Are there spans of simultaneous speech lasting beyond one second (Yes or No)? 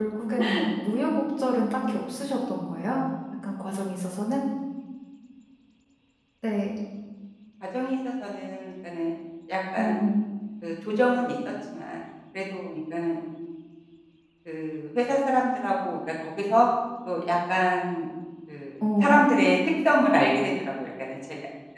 No